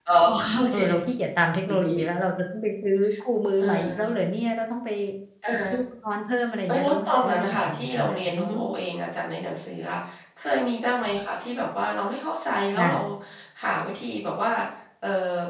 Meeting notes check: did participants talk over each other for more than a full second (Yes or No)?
Yes